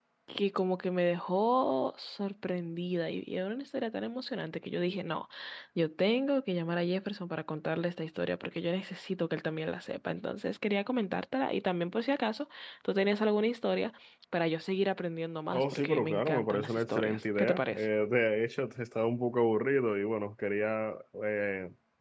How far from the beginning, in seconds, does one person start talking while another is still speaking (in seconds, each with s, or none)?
15.5 s